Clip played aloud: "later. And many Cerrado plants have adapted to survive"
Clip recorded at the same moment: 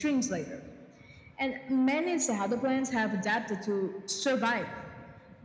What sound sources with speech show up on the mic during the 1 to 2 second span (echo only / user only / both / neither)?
echo only